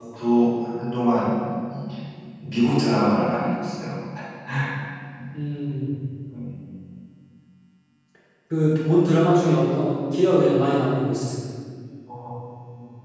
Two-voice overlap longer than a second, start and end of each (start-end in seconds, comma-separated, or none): none